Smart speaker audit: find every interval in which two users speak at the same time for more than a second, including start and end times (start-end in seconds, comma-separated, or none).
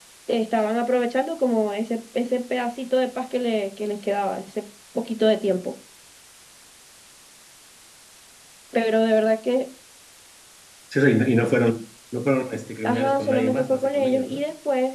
12.8-14.4